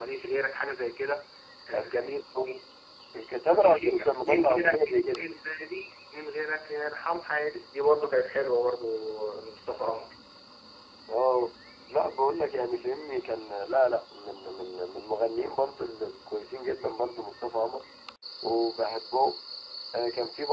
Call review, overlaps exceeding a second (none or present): present